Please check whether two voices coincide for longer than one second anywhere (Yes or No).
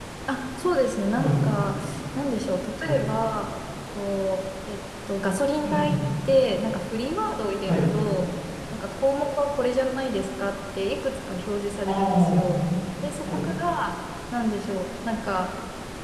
No